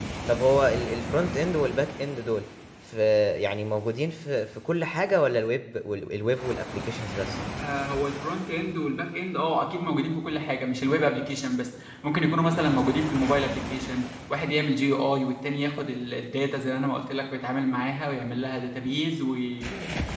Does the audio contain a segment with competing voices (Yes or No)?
No